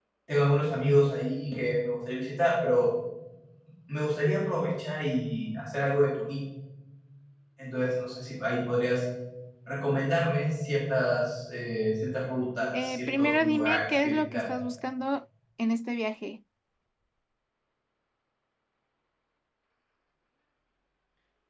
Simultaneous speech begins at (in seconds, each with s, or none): 12.7 s